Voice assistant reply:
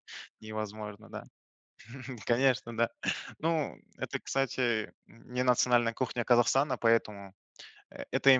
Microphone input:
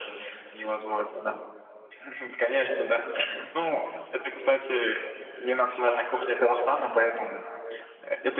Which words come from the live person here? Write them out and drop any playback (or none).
none